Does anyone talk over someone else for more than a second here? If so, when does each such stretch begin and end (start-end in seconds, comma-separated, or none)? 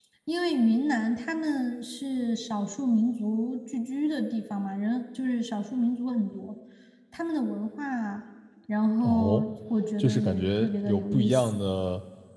10.0-11.6